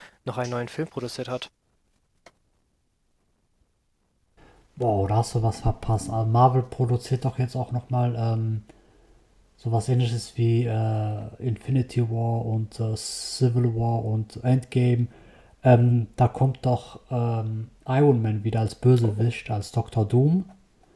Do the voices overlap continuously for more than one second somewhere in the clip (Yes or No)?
No